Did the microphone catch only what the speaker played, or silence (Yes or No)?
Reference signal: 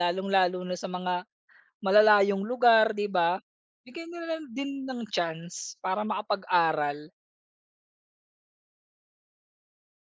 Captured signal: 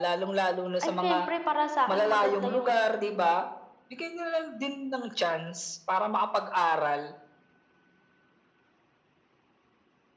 No